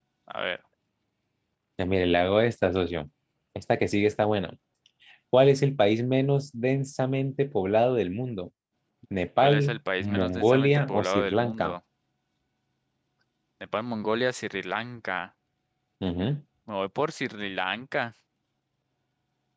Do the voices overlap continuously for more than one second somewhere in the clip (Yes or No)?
Yes